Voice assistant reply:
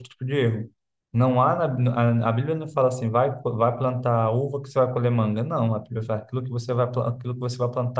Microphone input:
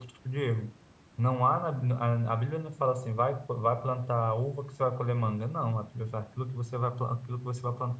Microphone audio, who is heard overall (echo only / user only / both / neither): echo only